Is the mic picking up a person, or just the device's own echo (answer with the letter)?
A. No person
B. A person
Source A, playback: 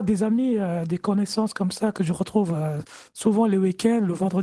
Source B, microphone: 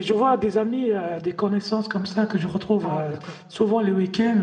B